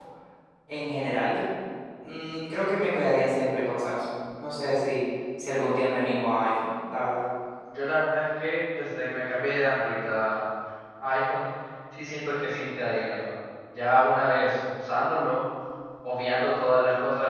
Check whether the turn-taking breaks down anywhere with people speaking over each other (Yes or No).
No